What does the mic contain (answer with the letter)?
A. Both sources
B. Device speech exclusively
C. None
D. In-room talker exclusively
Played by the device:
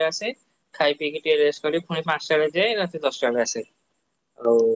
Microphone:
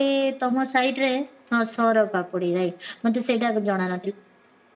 D